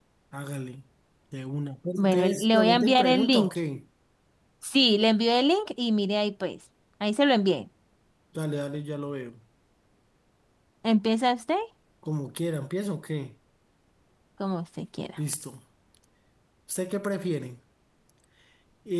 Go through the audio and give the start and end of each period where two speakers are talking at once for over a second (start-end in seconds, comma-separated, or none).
2.0-3.5